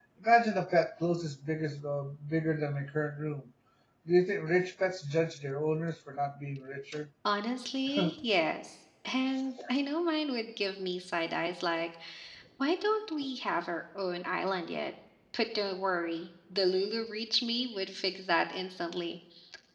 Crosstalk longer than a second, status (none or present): none